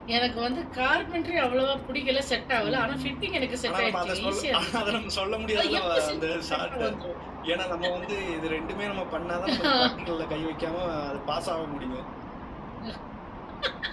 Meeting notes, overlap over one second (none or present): present